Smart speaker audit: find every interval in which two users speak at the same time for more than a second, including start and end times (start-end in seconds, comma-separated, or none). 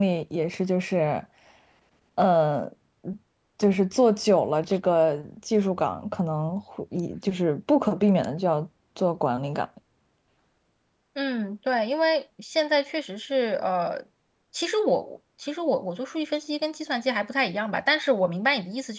none